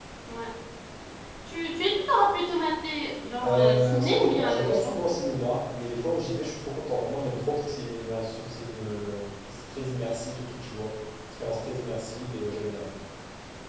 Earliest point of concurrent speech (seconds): 3.4 s

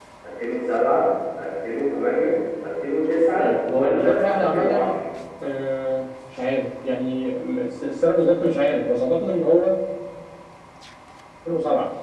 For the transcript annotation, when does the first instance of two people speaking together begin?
3.4 s

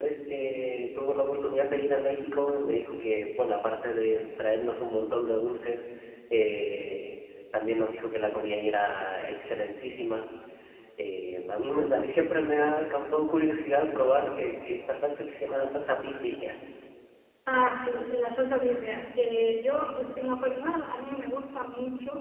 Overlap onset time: none

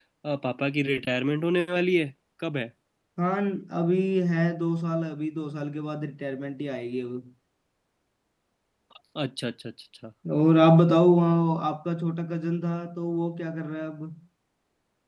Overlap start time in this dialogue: none

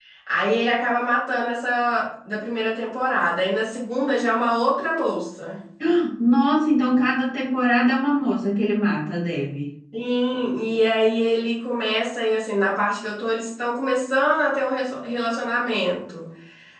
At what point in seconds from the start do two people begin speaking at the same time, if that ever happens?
none

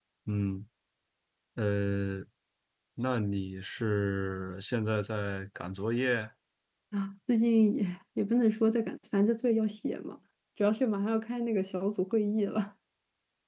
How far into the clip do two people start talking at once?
none

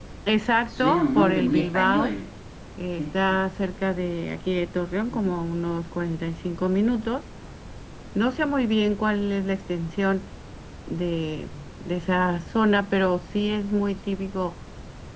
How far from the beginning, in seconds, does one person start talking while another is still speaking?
0.7 s

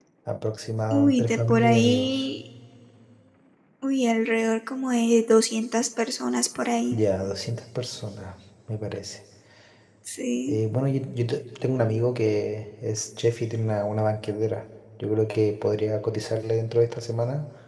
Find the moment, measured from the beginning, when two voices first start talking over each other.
0.9 s

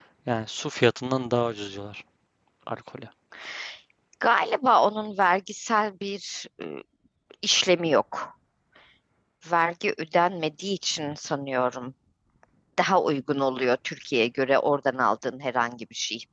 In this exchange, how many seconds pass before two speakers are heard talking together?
none

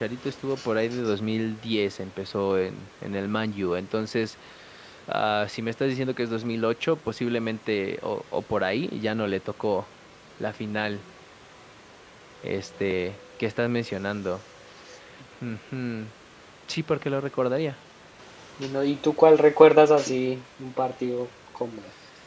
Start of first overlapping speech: none

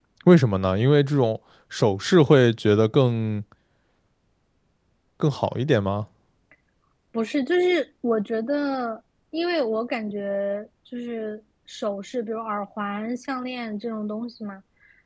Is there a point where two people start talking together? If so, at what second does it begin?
none

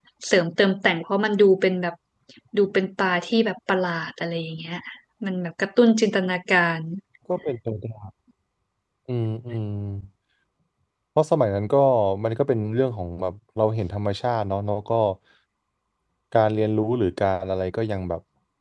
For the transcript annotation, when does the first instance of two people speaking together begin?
none

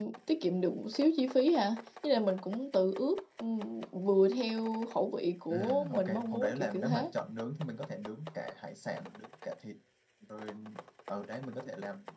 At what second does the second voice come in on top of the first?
5.5 s

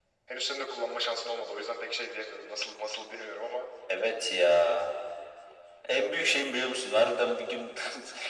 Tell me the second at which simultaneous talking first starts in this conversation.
none

